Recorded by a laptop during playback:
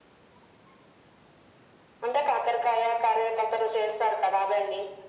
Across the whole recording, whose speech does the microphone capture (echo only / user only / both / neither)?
echo only